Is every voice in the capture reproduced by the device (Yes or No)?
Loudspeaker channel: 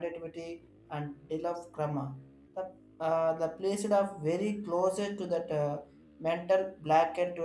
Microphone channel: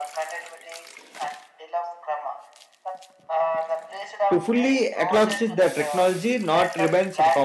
No